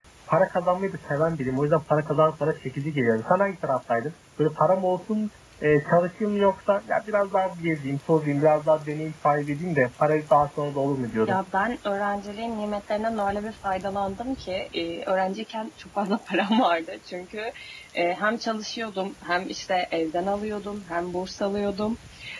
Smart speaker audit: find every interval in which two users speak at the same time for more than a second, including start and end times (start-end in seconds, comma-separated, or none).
none